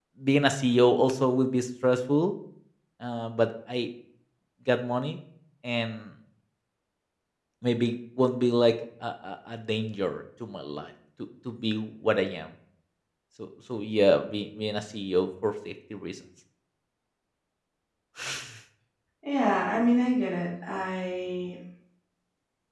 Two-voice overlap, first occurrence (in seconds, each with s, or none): none